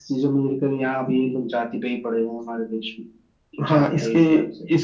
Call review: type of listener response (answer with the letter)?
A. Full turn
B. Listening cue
A